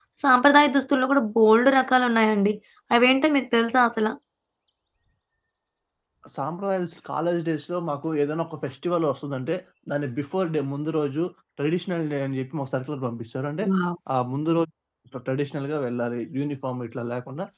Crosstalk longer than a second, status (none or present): none